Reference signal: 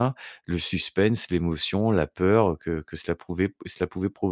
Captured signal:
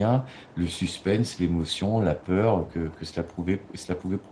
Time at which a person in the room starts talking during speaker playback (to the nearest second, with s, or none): none